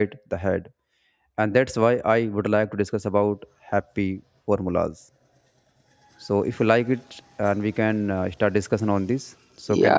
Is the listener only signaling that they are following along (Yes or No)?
No